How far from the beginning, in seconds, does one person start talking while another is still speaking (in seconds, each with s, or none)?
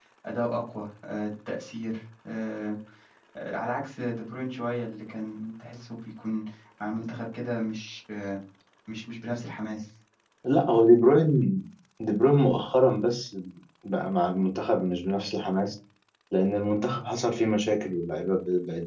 none